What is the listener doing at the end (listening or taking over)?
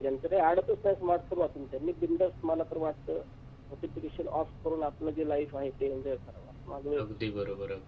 taking over